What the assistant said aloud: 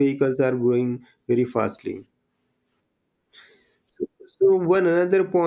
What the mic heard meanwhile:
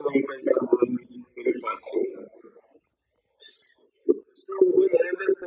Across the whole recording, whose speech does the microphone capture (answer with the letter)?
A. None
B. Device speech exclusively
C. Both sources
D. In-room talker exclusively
B